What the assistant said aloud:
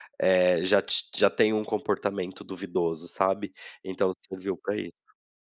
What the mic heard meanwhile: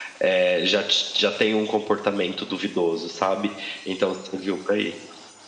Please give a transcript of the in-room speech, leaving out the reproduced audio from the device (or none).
none